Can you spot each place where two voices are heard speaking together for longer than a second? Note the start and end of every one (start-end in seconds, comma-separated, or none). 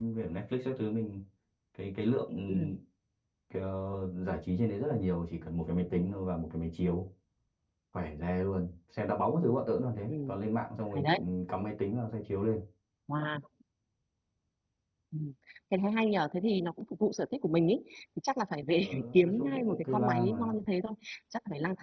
18.8-20.6